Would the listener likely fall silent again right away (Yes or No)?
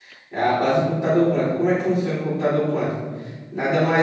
Yes